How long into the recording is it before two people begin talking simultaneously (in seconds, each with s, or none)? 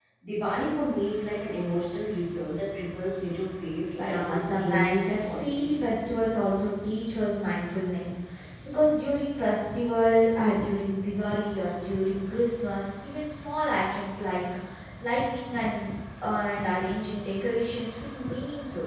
4.0 s